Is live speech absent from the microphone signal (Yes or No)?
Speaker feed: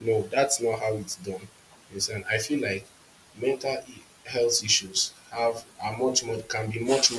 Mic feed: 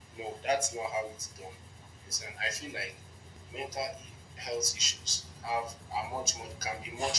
Yes